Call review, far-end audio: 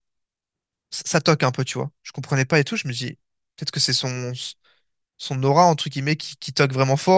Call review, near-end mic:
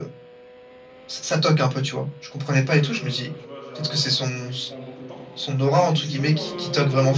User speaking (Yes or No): Yes